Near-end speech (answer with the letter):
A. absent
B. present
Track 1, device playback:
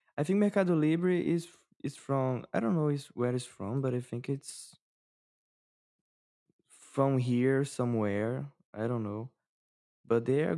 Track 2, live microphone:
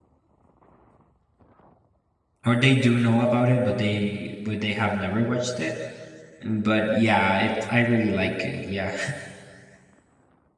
B